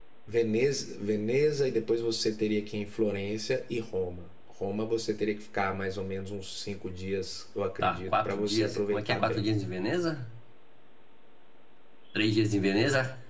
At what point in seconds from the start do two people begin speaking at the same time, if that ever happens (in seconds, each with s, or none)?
7.8 s